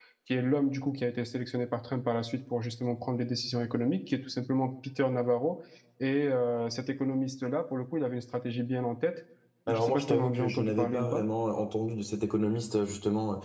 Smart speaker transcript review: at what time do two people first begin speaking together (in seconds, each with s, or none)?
9.7 s